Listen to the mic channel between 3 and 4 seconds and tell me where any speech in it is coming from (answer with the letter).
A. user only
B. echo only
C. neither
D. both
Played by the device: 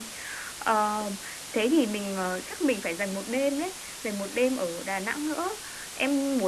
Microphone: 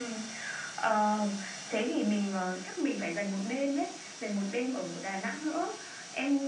B